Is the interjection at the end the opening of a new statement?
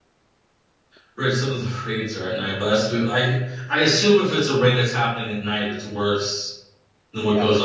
No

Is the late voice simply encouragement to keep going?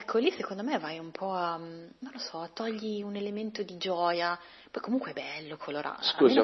No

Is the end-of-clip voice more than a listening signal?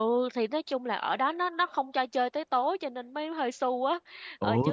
No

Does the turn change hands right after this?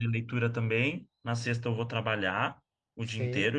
No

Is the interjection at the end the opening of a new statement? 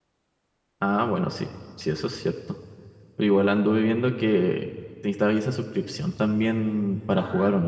Yes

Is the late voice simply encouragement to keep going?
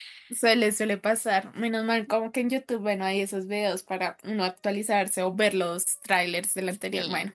No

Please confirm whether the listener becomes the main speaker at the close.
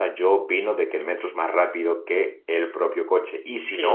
Yes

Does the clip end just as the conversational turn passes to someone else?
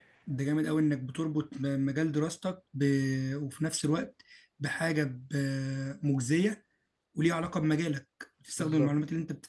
No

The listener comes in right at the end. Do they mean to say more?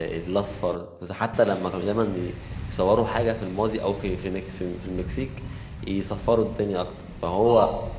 No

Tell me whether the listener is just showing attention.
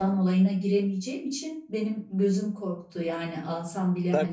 No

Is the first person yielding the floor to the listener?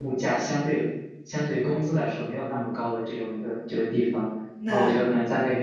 No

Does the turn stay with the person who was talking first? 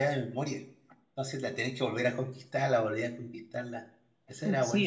No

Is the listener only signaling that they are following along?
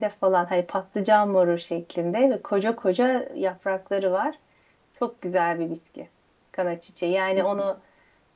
Yes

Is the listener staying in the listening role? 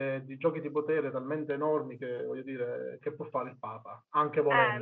No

